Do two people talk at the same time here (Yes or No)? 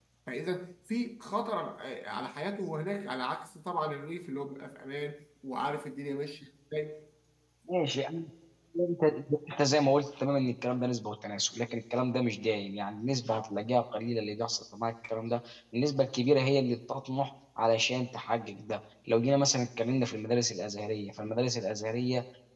No